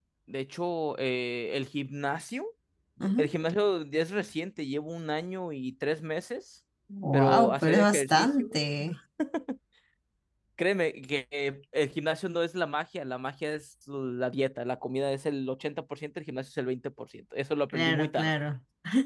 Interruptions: present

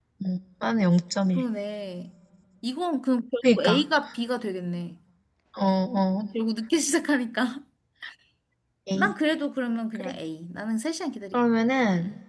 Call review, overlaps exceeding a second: none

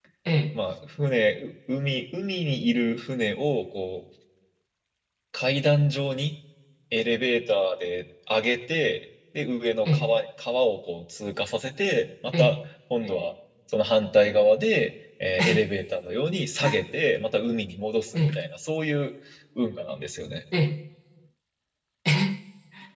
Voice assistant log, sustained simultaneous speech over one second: none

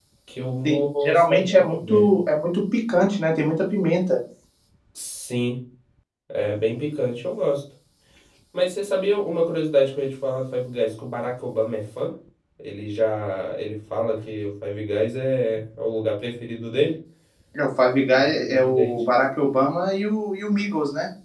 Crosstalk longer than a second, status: present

